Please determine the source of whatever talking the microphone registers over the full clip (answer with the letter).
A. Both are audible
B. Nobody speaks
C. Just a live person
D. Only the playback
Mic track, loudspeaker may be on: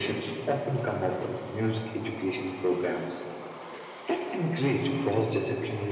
D